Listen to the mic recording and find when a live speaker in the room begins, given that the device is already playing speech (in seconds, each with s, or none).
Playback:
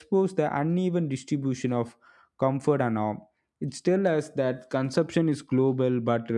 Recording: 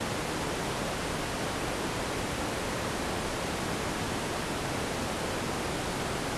none